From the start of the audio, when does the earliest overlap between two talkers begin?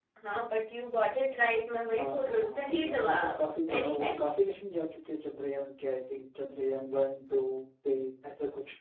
1.9 s

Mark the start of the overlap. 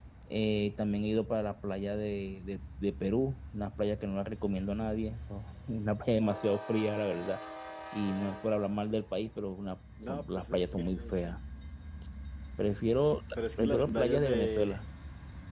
10.1 s

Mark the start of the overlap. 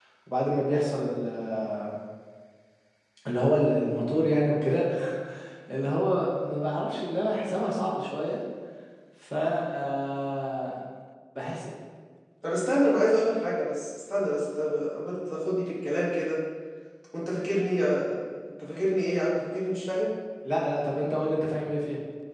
none

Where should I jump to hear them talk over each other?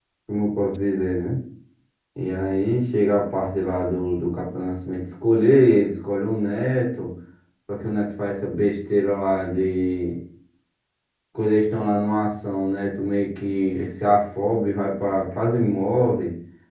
none

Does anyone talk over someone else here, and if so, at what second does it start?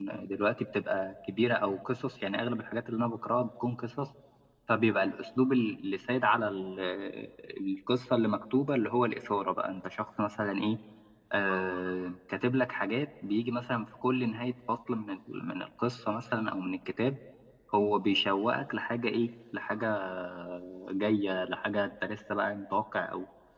none

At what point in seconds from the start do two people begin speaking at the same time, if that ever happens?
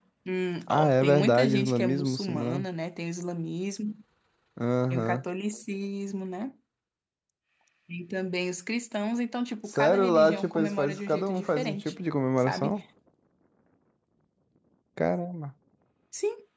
0.7 s

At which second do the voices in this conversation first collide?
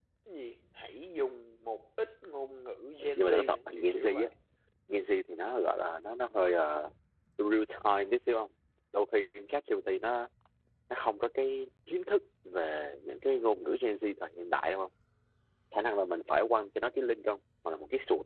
3.0 s

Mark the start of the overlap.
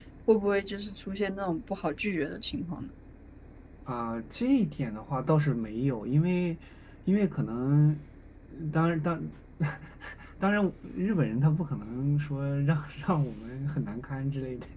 none

